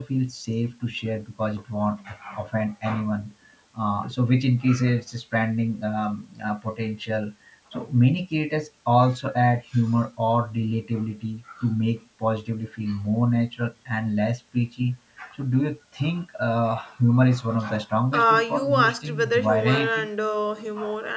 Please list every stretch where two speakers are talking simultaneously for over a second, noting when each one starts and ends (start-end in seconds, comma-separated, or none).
18.1-20.1